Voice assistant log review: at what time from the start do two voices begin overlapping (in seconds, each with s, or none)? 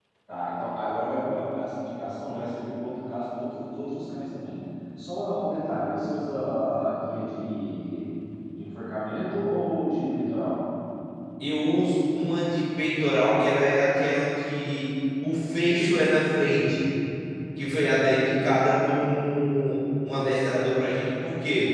none